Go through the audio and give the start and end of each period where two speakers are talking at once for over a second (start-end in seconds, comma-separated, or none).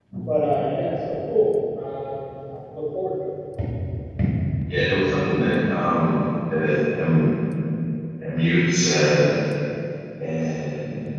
none